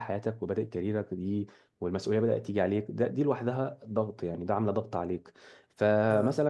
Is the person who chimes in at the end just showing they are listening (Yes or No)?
Yes